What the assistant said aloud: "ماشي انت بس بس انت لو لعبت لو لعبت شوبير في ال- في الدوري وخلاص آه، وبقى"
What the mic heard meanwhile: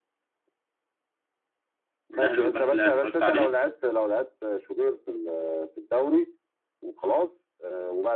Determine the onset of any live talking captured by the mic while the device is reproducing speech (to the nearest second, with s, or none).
2 s